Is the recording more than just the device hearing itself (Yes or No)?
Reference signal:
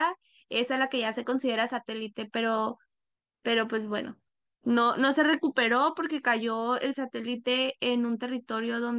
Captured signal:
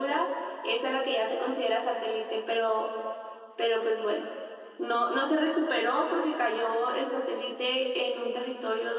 No